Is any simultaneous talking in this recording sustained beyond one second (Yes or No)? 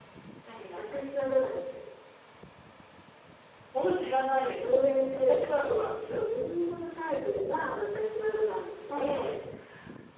No